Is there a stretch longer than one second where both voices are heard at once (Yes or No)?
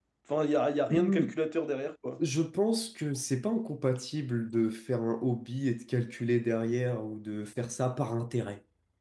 No